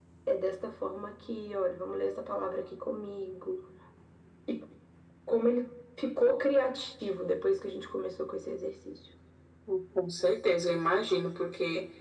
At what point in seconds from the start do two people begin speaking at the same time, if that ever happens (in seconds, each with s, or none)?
none